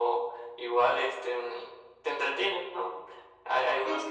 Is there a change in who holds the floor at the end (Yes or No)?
No